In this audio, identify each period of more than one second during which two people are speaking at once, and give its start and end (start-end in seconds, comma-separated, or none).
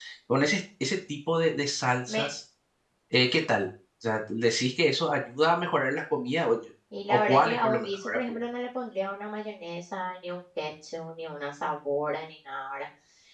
7.1-8.4